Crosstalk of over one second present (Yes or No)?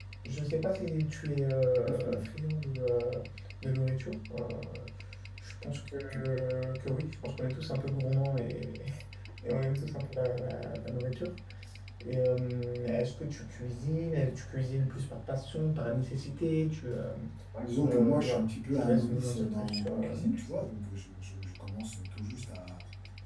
Yes